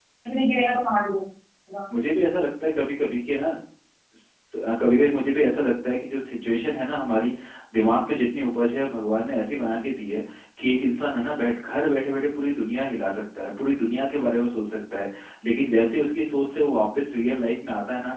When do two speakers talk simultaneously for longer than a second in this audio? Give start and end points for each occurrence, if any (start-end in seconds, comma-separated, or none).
none